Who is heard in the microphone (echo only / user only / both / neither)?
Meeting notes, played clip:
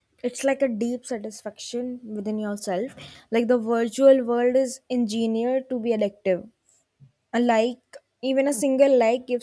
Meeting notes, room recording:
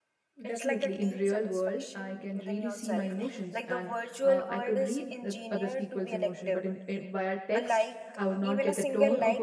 both